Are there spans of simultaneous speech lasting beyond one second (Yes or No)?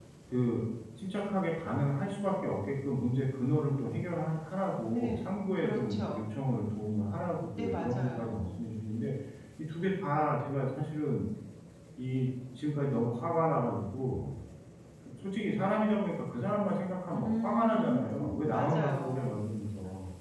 Yes